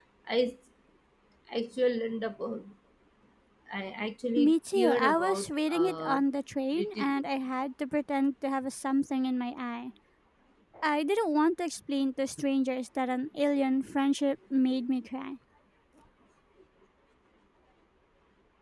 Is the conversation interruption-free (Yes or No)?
No